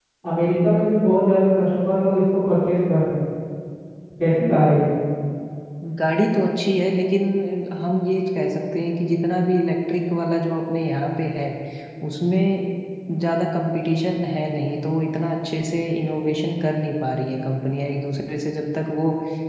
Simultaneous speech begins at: none

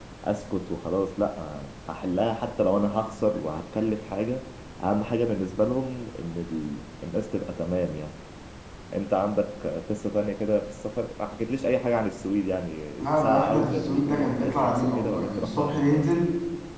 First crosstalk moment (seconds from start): 13 s

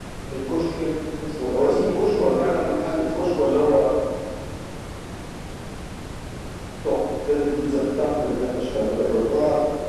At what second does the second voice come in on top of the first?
2 s

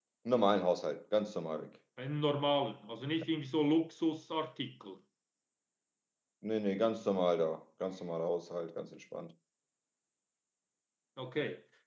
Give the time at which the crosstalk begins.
none

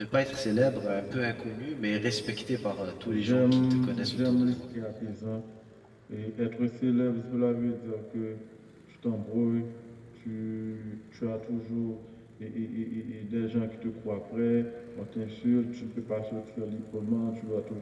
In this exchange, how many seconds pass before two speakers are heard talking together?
3 s

